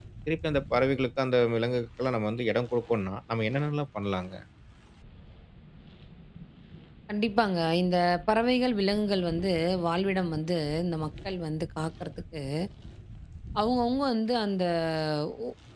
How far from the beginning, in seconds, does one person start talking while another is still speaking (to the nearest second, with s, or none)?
none